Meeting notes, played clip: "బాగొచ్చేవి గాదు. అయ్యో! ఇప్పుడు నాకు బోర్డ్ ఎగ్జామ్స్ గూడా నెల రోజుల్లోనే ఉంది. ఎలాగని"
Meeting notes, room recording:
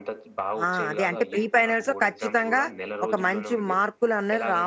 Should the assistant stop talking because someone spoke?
Yes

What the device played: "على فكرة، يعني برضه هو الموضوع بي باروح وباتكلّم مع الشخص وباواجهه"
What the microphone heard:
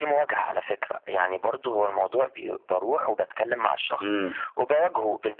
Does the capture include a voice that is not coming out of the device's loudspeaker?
Yes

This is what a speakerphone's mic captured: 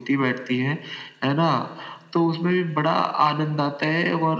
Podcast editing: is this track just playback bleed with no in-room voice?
Yes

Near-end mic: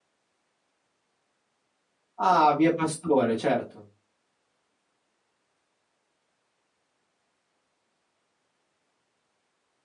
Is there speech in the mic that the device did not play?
Yes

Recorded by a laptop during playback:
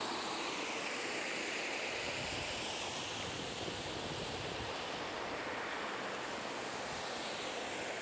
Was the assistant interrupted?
No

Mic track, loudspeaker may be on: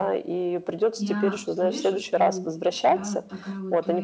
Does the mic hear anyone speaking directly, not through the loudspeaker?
Yes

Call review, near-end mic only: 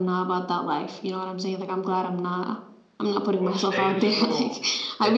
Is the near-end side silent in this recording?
No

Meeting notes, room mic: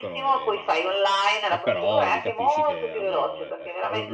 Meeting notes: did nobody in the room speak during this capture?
No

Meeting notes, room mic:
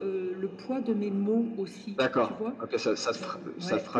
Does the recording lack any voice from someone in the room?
Yes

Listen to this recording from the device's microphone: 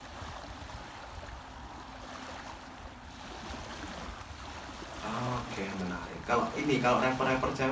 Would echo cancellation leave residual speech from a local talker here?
Yes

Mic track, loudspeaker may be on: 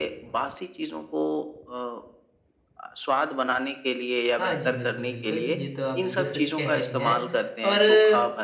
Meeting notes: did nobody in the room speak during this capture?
No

